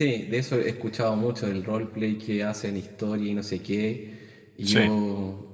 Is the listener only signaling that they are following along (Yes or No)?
Yes